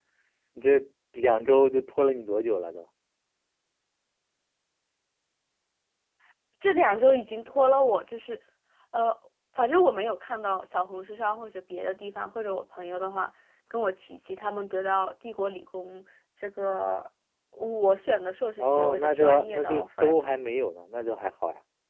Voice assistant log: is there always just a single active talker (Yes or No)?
No